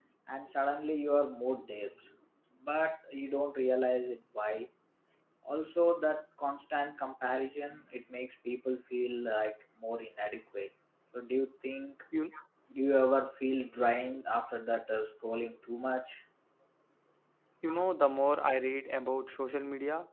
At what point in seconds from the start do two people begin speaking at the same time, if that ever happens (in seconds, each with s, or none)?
none